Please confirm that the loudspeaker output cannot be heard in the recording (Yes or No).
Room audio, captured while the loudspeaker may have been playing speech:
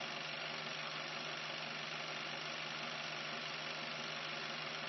Yes